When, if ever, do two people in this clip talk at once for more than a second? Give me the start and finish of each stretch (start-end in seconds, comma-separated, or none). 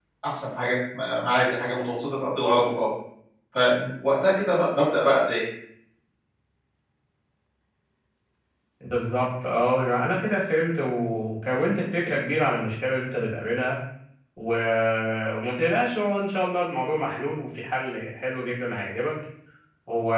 none